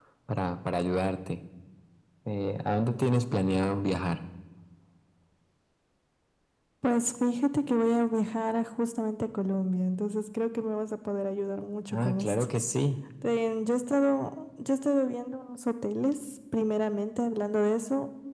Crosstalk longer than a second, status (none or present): none